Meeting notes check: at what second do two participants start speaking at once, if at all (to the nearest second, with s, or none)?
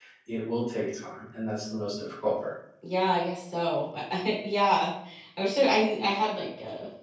none